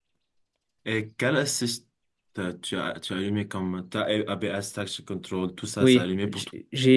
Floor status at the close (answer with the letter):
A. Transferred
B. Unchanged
A